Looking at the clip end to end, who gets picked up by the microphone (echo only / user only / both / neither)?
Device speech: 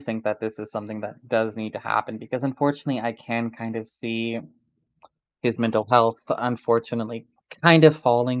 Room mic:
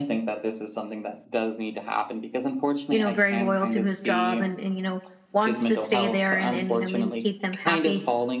both